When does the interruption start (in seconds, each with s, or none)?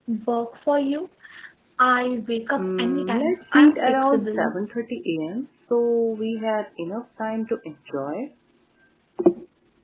2.6 s